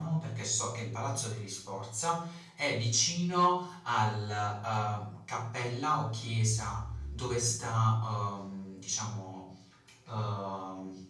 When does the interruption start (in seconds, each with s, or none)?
none